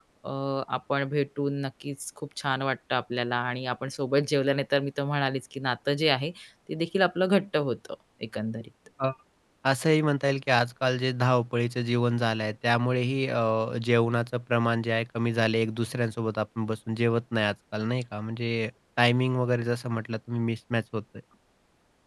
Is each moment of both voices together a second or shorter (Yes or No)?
Yes